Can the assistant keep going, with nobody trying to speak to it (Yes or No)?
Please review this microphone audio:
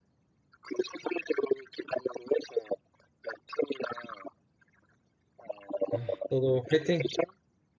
No